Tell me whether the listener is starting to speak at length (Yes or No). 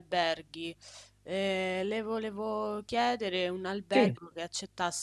No